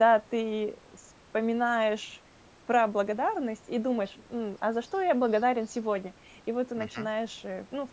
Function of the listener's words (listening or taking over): listening